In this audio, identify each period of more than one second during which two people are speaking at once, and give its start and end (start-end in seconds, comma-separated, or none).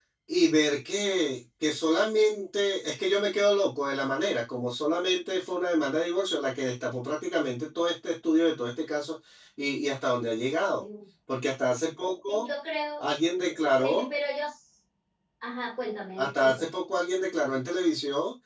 none